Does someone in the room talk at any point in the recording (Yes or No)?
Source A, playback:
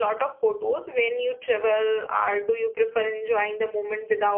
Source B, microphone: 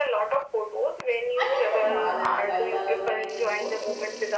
Yes